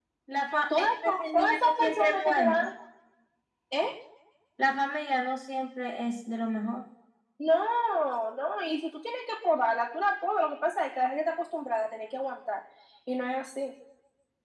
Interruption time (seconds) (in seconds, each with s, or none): 0.8 s